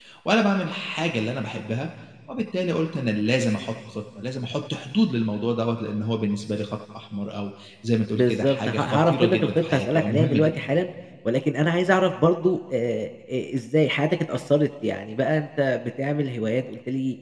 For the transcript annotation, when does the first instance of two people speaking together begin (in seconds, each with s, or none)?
8.2 s